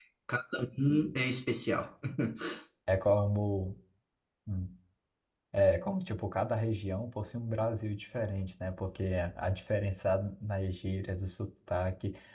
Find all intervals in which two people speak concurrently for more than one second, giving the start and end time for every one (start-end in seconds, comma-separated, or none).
none